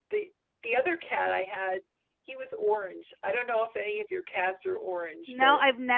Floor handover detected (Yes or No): Yes